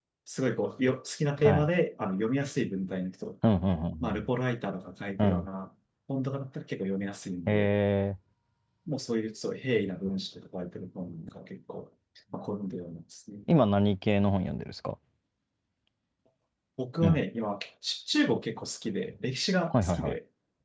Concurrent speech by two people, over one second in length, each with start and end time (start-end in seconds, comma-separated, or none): none